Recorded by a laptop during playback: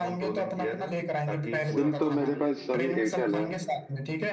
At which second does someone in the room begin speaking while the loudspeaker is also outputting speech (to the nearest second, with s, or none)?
2 s